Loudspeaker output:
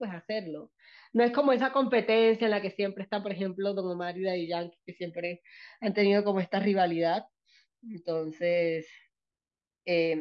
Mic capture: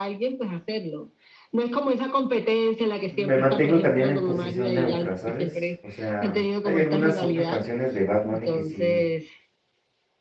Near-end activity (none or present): present